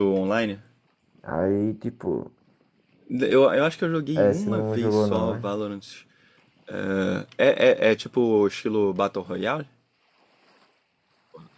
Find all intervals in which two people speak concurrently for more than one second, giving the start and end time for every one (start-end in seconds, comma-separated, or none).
4.2-5.5